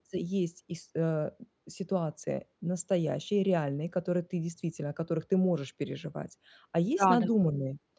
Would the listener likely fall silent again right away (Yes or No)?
Yes